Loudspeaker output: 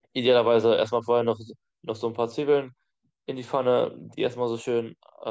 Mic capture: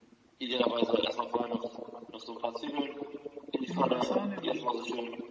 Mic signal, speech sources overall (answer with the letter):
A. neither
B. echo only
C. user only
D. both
D